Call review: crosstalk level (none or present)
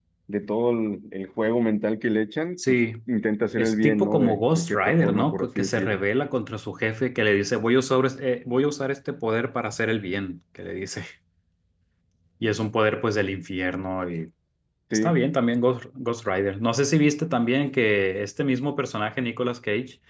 present